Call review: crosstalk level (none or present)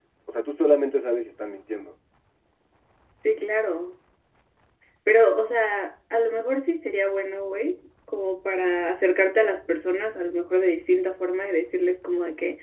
none